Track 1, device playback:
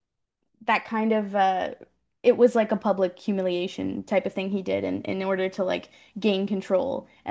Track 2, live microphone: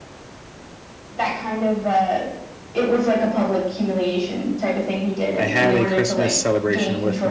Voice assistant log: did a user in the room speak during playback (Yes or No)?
Yes